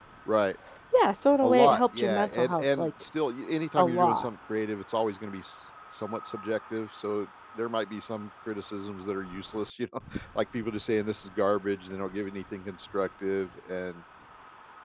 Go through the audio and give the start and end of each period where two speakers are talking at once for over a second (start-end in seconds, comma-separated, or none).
1.4-2.9